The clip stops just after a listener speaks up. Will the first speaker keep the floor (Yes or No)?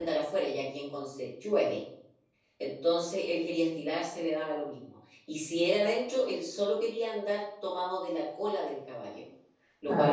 Yes